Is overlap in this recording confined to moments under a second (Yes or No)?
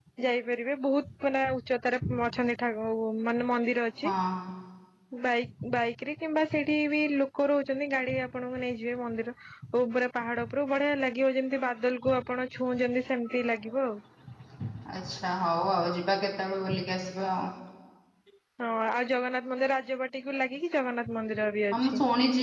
Yes